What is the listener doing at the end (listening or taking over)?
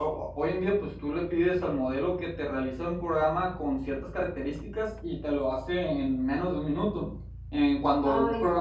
listening